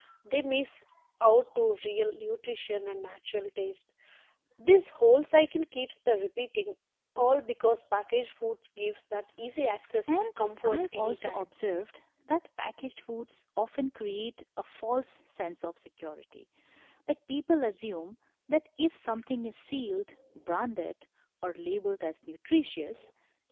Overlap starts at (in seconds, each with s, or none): 10.1 s